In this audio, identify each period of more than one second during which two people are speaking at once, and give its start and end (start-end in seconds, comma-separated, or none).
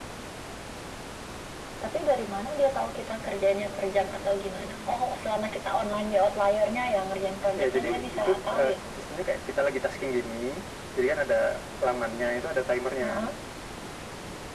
7.6-8.8